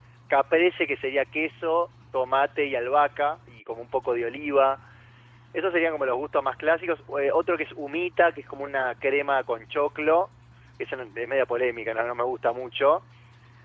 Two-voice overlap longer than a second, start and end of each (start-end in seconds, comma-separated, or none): none